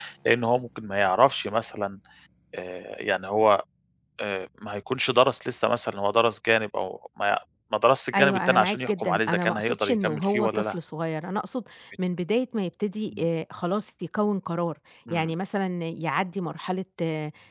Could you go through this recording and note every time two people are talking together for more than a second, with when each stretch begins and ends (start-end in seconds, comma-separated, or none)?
8.1-10.8